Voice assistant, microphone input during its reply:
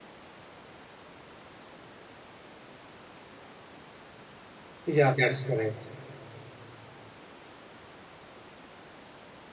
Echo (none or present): none